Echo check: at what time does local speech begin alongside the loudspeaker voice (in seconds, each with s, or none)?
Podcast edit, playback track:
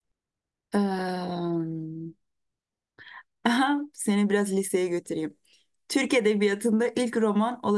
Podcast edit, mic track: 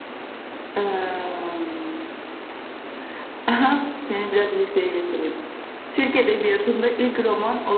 none